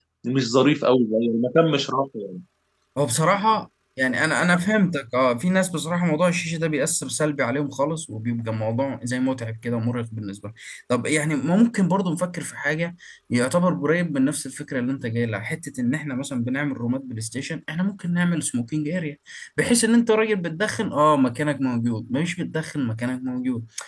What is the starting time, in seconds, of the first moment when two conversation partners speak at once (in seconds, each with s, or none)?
none